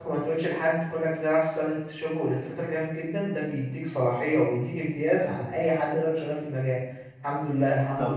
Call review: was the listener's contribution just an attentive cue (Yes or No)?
Yes